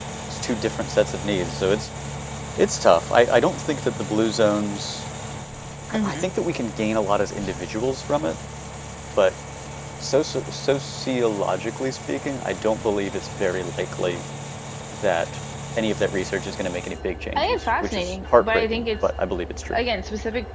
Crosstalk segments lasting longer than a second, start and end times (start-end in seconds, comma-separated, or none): 17.4-18.8